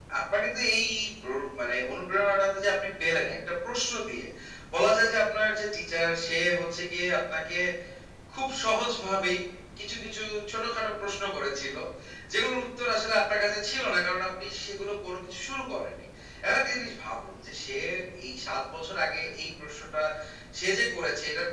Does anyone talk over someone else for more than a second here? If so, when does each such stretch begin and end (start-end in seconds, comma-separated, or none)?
none